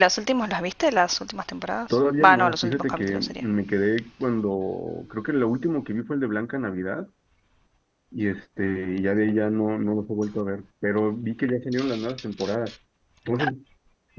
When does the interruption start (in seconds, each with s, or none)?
1.9 s